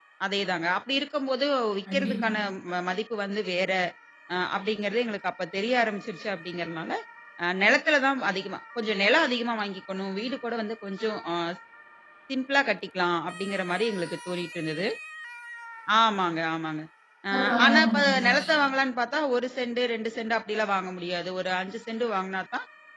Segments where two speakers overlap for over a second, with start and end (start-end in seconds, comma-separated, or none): 17.3-18.5